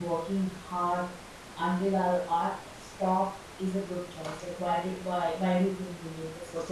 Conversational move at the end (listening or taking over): taking over